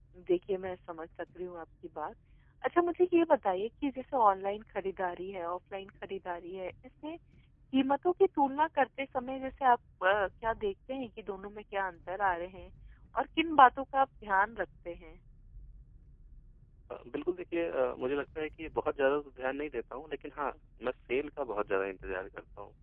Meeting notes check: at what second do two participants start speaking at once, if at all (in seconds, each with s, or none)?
none